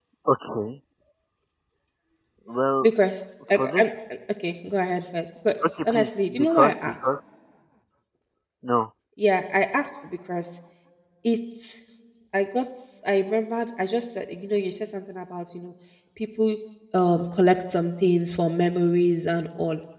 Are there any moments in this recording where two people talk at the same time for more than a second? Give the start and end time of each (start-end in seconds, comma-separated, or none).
5.7-6.9